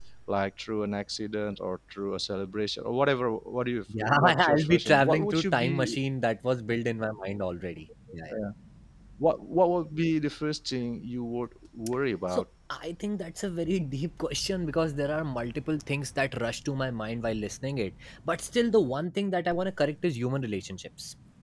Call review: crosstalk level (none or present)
present